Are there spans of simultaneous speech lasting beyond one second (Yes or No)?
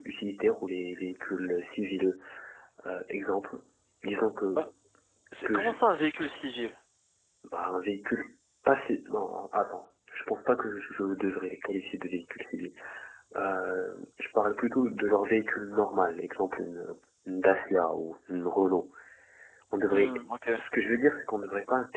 No